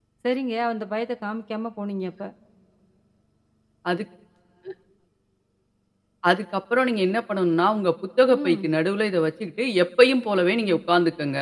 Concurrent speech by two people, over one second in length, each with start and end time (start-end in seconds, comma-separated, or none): none